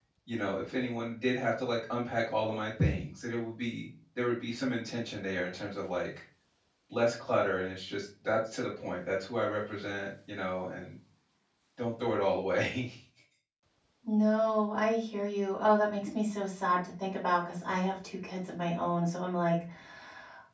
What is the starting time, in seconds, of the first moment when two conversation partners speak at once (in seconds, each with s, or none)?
none